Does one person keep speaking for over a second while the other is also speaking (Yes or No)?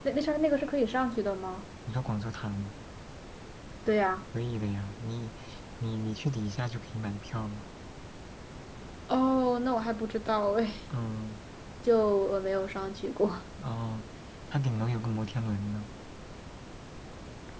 No